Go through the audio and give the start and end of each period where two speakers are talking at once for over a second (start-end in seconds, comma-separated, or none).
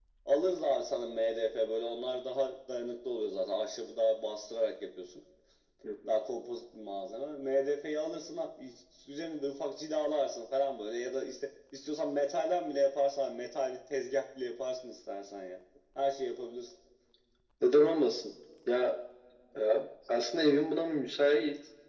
none